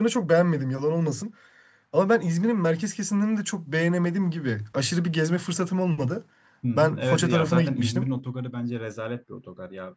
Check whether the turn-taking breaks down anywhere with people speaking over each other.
Yes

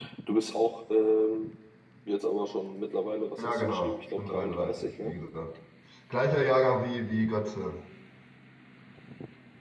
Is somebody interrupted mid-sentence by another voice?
Yes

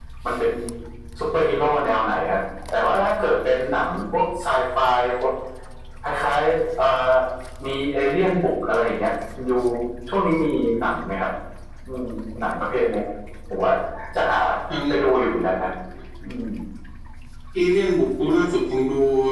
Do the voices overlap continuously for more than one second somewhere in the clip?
No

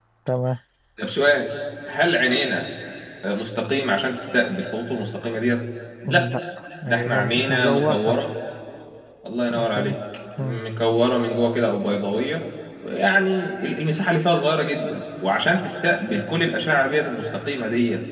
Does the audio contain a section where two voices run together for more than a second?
Yes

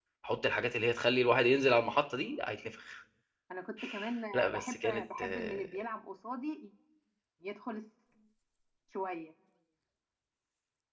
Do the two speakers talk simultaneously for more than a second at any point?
Yes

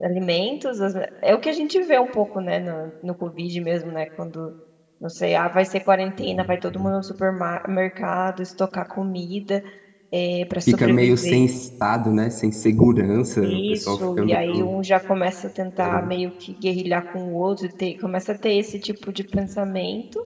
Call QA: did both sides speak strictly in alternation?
No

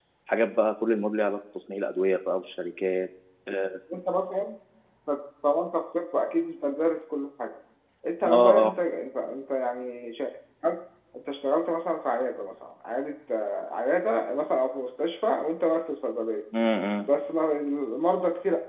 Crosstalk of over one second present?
No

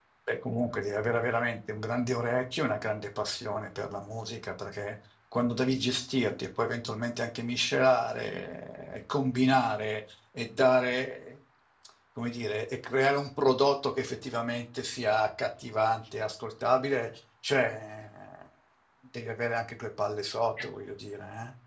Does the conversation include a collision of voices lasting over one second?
No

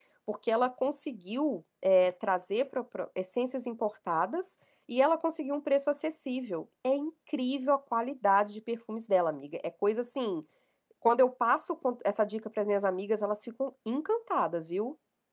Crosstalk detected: No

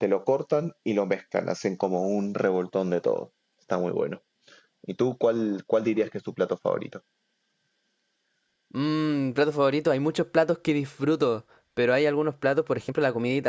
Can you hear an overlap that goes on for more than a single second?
No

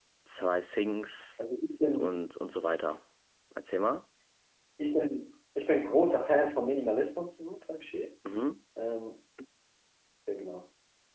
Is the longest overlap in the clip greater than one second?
No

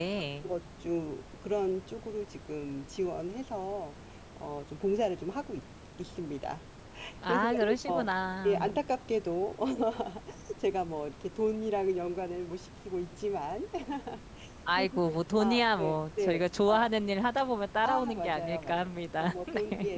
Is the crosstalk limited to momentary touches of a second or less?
No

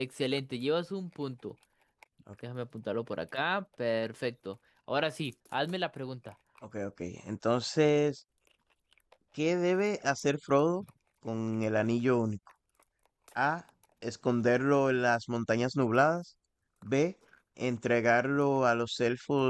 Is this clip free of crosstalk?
Yes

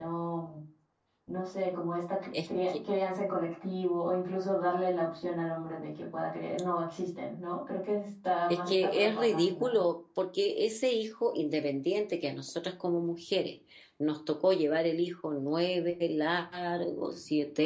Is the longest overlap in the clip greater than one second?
Yes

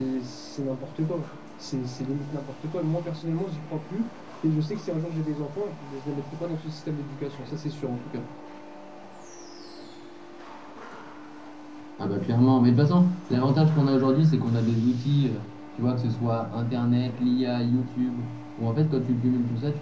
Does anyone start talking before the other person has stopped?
No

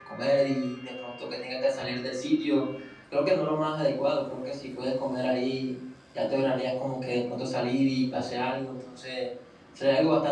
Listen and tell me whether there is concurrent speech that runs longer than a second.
No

